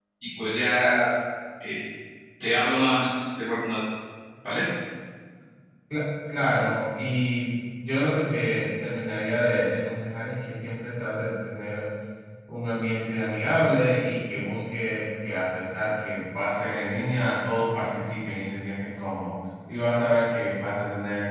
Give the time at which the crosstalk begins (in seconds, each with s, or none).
none